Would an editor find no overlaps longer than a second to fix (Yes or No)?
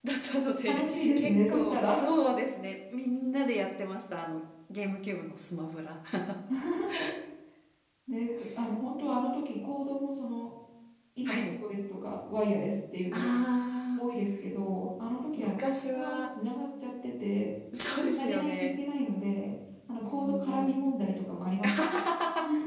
No